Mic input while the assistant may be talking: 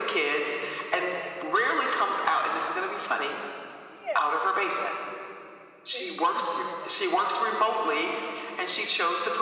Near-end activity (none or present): present